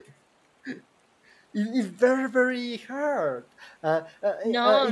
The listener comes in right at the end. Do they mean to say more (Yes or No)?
No